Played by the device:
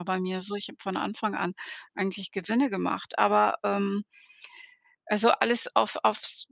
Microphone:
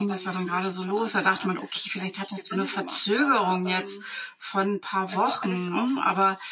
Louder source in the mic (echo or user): user